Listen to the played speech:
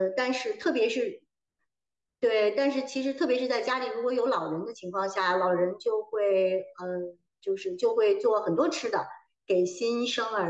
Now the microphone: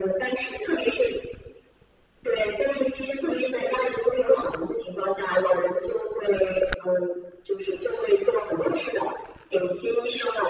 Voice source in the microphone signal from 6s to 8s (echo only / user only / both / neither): echo only